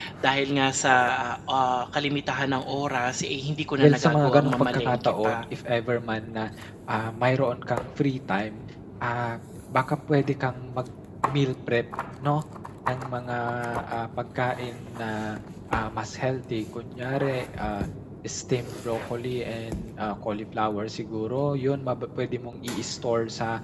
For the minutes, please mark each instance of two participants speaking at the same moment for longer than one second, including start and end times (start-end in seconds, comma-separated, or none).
3.8-5.4